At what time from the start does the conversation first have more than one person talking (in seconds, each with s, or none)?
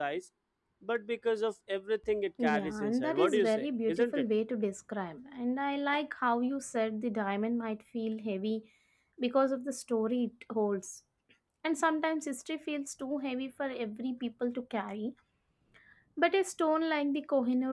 2.4 s